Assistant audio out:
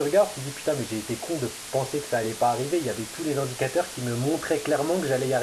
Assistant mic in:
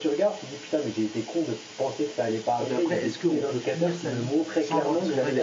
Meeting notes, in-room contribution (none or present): present